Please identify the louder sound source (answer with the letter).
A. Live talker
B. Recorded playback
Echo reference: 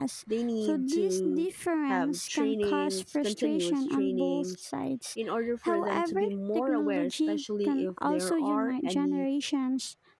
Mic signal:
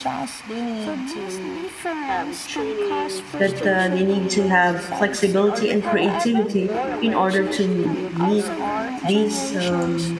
A